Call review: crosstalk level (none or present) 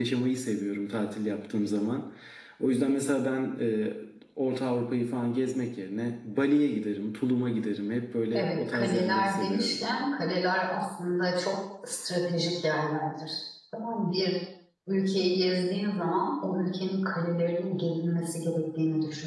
present